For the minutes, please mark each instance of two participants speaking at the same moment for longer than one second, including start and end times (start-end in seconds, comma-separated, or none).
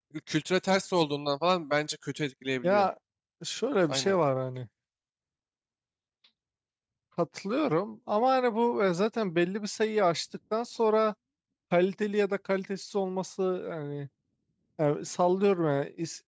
none